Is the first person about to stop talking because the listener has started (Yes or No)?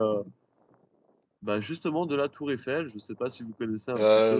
Yes